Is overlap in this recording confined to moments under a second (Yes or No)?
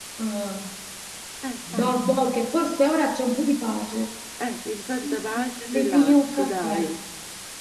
No